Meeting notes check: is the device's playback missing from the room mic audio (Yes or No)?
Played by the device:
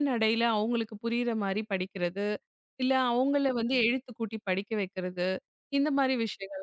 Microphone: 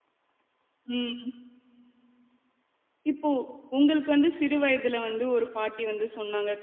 Yes